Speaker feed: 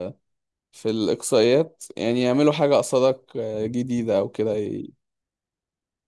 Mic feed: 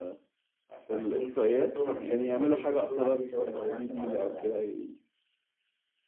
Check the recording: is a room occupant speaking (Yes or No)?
Yes